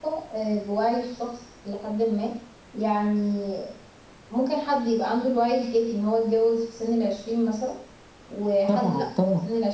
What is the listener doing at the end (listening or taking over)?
listening